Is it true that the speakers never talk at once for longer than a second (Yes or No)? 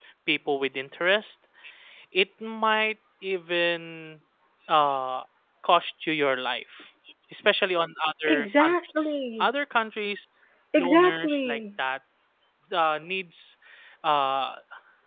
No